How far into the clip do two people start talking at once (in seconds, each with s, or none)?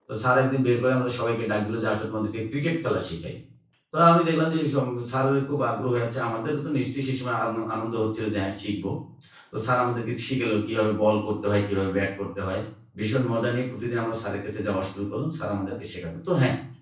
none